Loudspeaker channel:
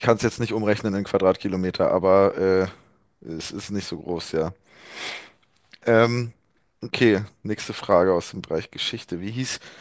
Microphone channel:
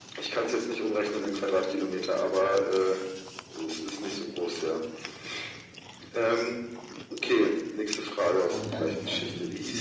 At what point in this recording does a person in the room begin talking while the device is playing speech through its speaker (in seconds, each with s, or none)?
8.5 s